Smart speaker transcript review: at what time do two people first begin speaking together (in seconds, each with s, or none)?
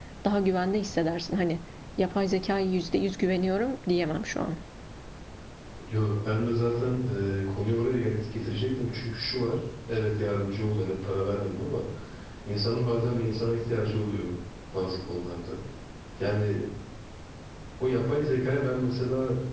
none